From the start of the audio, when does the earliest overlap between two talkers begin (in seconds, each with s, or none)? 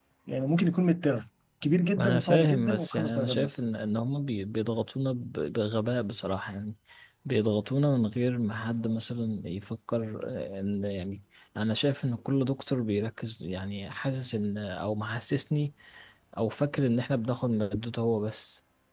2.0 s